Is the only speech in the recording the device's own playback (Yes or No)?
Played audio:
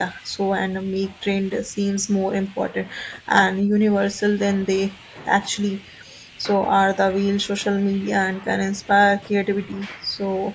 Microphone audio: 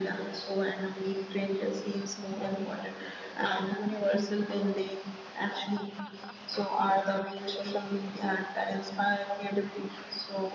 Yes